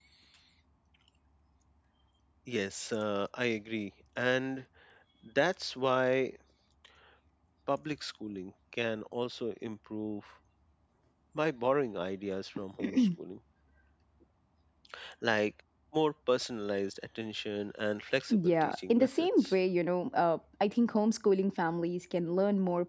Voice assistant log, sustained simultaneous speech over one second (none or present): present